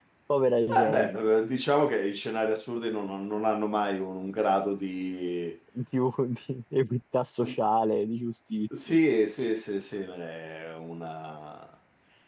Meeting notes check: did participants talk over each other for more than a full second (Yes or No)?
No